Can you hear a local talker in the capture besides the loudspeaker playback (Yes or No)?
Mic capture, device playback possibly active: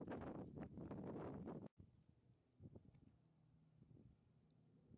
No